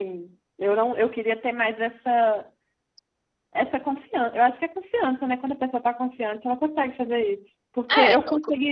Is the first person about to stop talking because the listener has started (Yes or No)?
No